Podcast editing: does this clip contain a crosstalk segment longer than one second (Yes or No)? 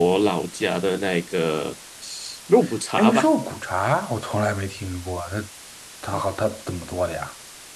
No